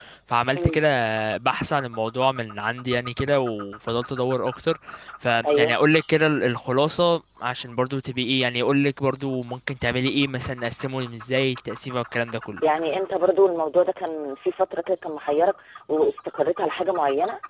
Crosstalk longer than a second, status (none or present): none